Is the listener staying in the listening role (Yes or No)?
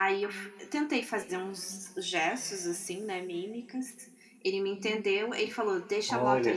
Yes